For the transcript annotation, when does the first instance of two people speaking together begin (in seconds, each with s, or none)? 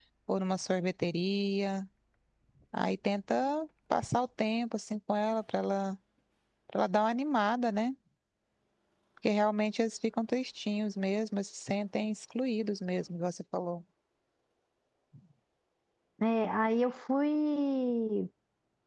none